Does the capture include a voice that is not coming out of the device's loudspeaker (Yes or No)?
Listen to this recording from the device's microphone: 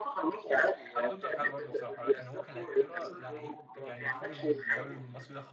Yes